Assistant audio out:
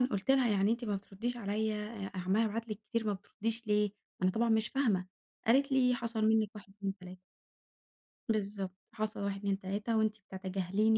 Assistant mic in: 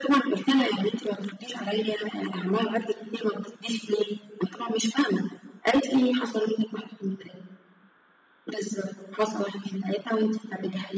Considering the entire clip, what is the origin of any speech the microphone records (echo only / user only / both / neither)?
echo only